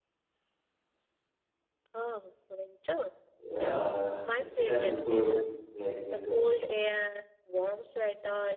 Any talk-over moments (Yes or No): Yes